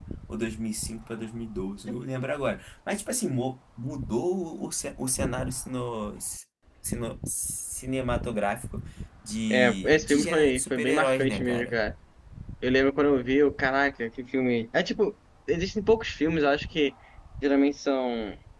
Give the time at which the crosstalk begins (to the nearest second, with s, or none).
10 s